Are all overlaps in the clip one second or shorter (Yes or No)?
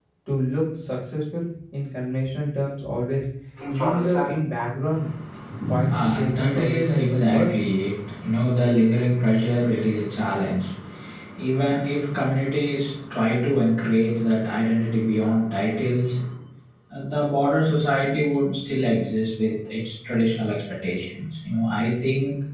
No